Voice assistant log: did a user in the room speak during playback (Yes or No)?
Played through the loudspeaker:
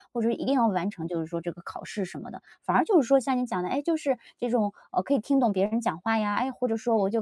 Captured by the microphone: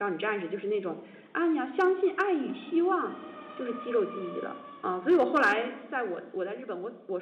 Yes